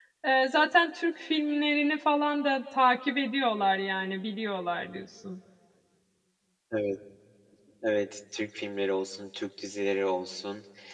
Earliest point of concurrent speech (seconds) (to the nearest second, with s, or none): none